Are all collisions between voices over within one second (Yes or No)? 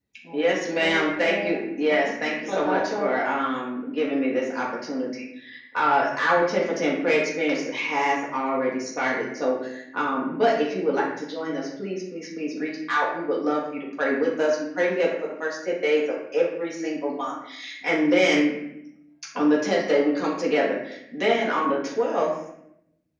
No